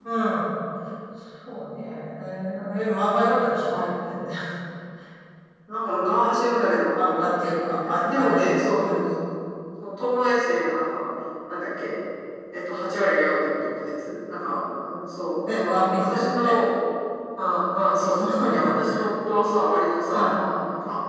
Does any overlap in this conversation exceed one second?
Yes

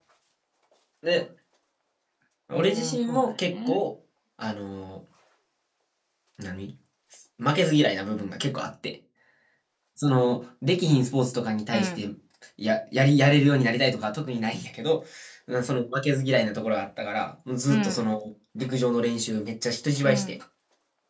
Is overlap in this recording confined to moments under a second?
No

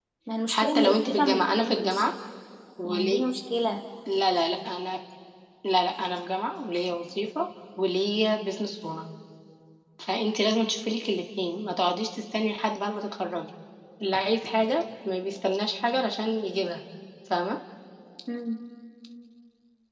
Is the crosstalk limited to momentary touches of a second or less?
No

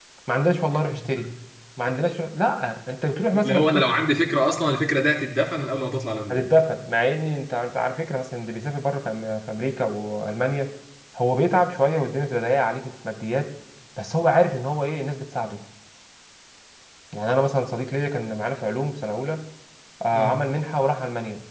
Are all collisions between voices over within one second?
Yes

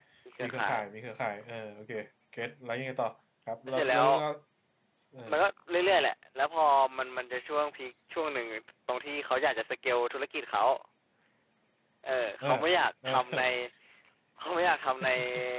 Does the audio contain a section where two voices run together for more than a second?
No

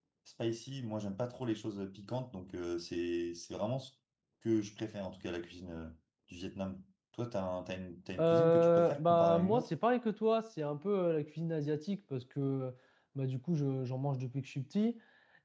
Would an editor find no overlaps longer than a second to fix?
No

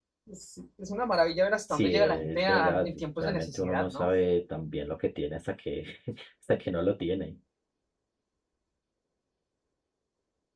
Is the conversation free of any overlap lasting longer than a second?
No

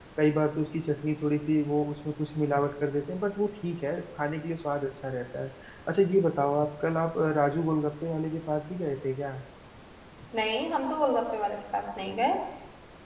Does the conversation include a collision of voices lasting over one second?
No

